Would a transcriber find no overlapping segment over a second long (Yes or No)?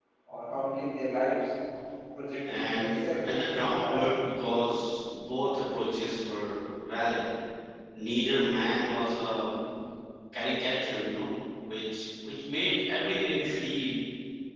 No